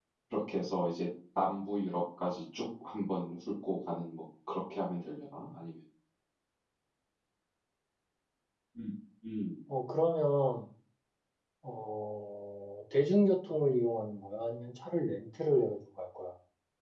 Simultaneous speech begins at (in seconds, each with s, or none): none